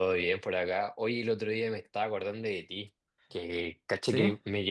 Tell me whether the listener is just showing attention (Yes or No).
Yes